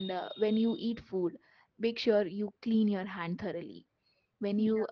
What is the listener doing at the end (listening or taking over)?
listening